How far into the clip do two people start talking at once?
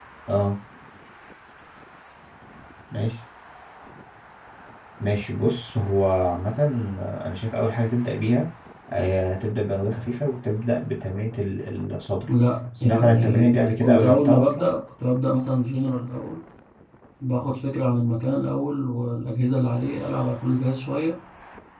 12.8 s

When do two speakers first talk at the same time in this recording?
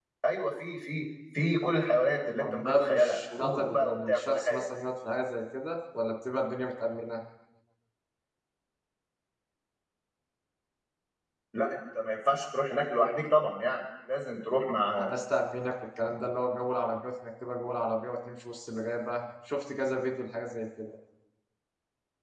2.4 s

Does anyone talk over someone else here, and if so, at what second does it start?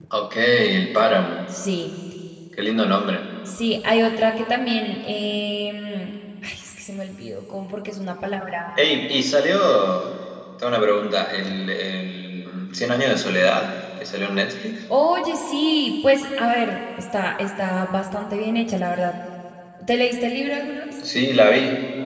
none

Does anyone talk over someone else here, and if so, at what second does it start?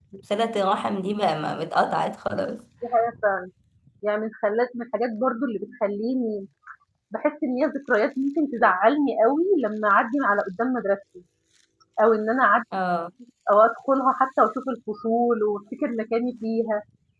none

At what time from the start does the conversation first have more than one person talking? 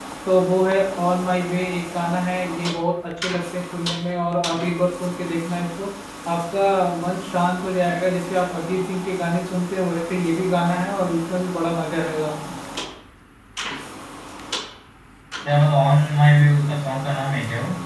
none

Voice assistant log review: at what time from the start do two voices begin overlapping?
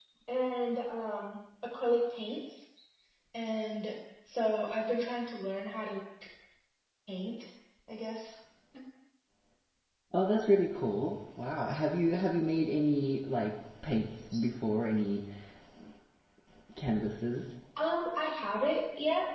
none

